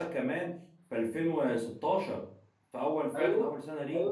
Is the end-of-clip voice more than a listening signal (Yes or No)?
Yes